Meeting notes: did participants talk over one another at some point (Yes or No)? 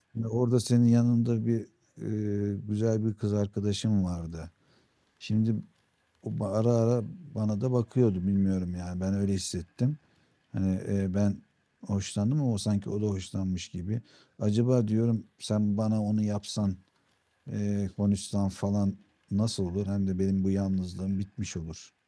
No